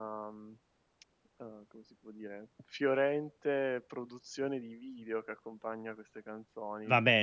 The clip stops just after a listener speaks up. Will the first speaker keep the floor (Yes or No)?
No